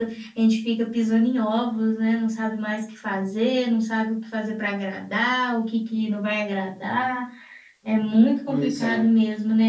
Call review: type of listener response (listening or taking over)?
listening